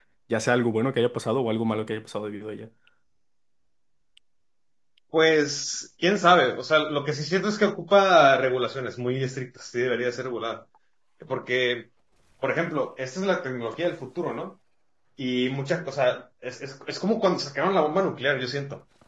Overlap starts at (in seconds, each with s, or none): none